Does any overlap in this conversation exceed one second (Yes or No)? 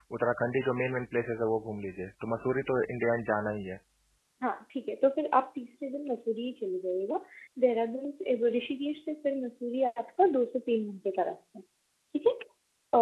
No